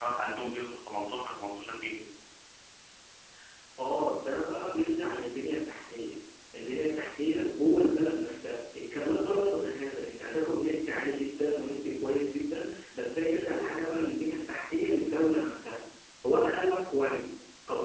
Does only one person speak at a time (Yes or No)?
Yes